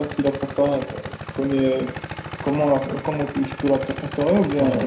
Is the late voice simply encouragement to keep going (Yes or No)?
No